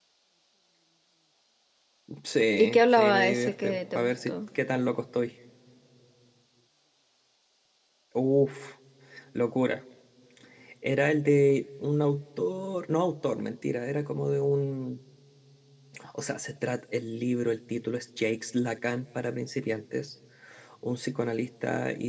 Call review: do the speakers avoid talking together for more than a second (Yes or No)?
No